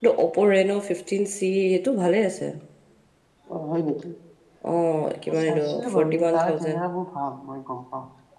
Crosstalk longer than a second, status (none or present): present